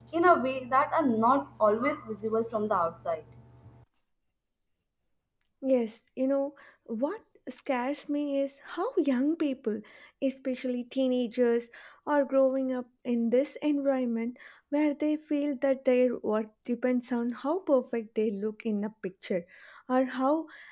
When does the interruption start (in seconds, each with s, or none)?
none